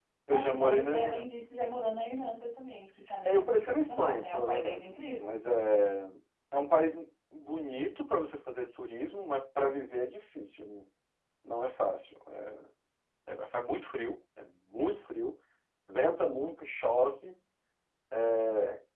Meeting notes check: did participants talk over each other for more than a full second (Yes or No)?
Yes